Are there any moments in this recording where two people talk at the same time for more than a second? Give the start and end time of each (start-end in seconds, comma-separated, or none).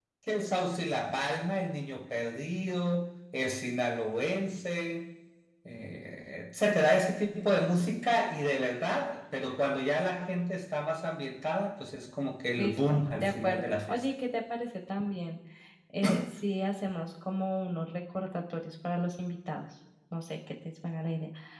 12.6-14.1